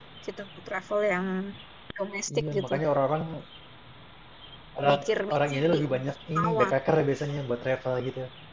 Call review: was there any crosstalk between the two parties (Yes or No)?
Yes